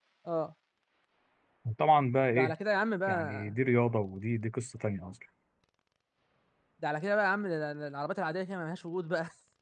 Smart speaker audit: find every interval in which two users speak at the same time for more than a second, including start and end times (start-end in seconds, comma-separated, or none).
none